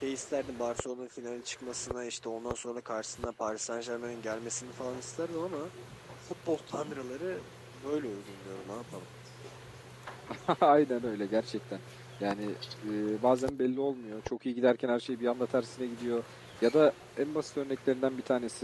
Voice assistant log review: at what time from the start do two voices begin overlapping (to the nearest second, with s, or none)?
none